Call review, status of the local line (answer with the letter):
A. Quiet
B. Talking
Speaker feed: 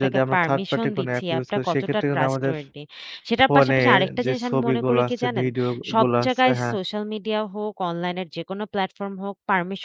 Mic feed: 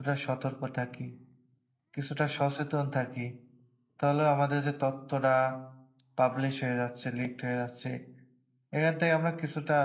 B